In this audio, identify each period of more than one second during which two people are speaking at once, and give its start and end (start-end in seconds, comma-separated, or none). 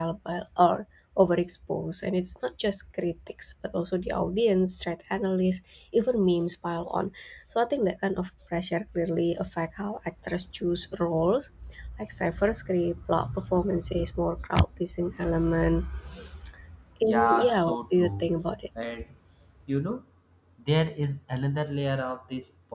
17.0-18.3